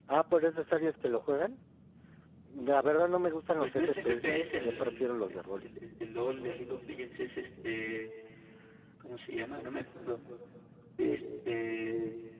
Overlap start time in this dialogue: 3.6 s

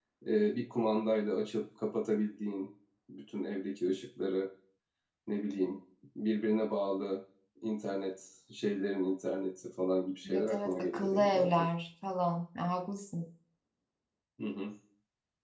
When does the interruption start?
10.2 s

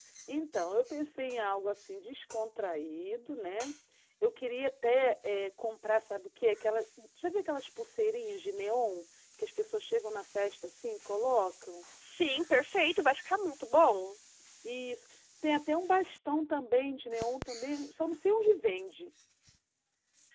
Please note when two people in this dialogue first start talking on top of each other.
none

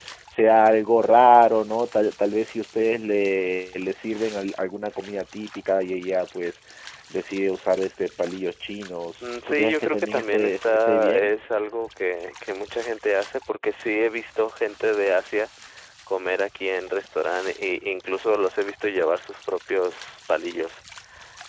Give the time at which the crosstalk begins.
9.2 s

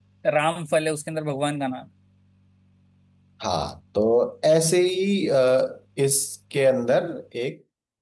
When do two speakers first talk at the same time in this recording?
none

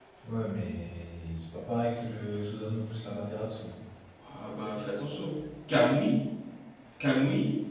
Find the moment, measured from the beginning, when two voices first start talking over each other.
none

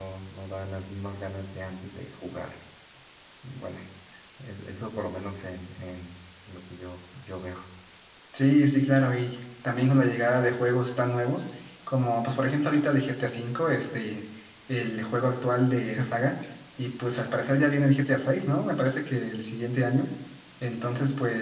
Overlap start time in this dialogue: none

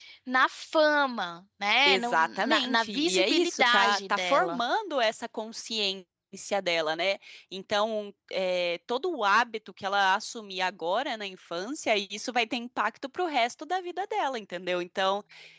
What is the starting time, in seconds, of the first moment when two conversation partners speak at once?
1.9 s

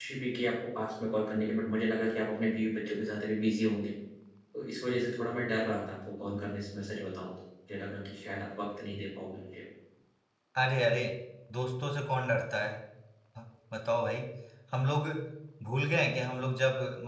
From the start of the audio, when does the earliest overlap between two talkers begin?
none

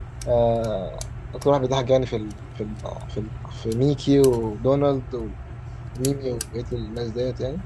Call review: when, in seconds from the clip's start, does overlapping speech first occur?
none

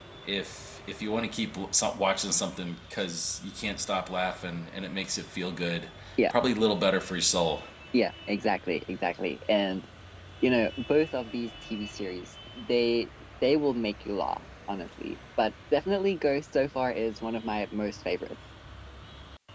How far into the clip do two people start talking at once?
none

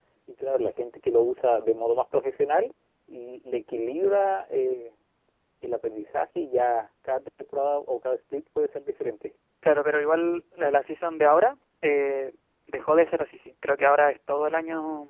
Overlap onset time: none

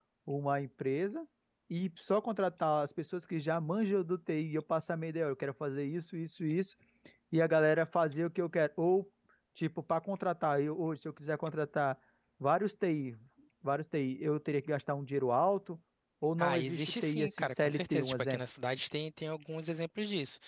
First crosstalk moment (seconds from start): 16.4 s

